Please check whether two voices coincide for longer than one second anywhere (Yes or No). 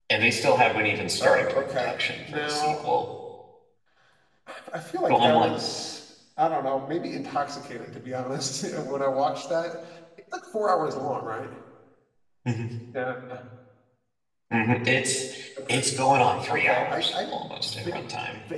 Yes